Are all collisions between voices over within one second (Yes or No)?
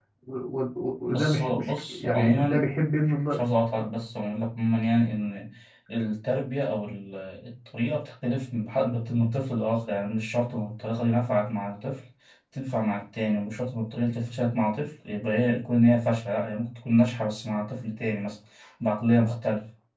No